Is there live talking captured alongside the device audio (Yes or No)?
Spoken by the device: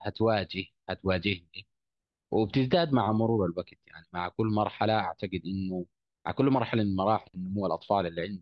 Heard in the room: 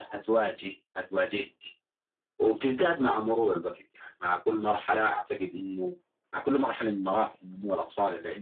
No